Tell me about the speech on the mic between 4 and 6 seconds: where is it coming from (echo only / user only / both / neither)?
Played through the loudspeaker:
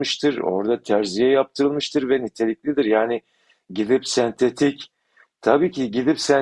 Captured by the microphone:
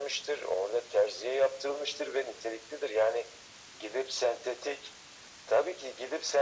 echo only